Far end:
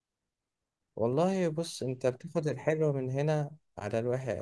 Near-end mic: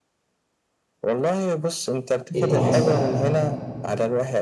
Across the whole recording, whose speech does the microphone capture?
both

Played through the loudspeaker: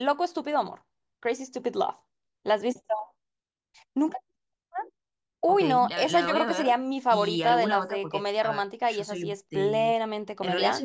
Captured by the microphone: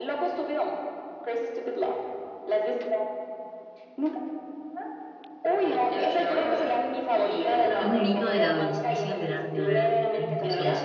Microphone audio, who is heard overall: both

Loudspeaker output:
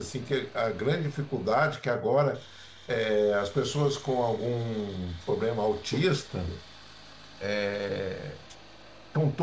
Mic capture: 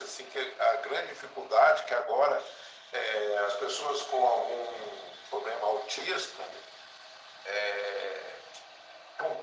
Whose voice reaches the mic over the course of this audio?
echo only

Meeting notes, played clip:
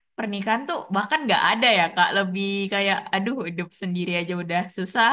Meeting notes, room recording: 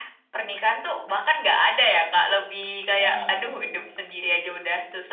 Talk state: both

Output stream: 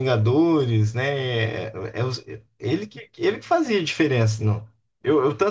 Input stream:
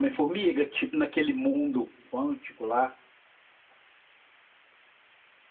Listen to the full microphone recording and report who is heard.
user only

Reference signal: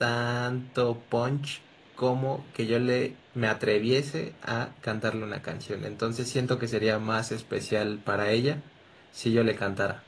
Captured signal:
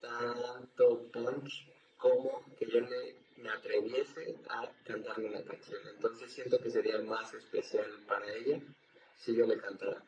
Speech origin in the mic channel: echo only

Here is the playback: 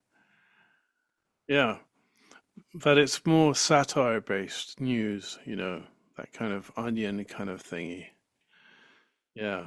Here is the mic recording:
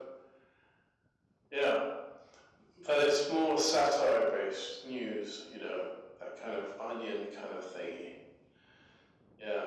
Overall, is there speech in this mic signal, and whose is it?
echo only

